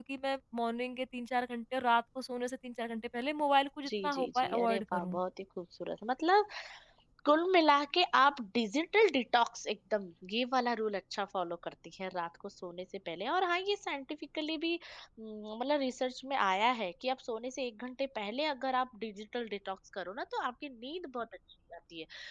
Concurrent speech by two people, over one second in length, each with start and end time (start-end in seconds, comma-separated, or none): 3.9-5.2